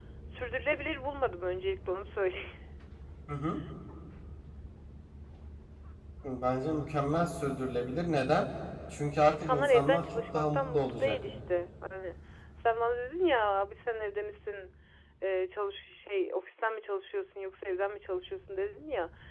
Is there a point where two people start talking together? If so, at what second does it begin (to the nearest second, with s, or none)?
9 s